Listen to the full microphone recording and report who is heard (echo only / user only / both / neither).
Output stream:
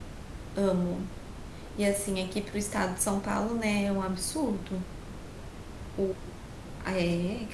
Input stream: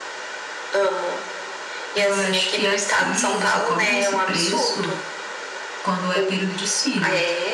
both